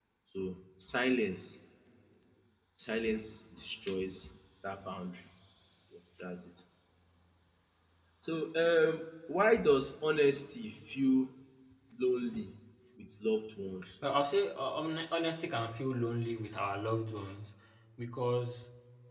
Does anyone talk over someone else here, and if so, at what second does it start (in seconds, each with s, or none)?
none